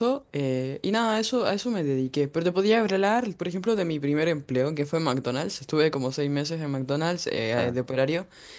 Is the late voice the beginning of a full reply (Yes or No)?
No